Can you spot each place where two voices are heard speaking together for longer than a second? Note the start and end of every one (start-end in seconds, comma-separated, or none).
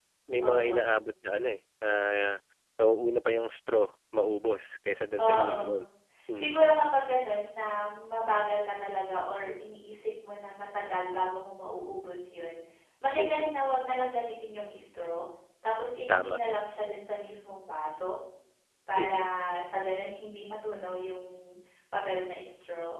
none